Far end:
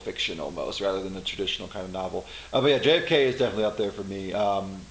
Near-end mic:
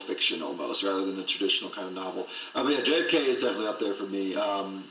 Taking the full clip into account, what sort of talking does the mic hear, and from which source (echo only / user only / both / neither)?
echo only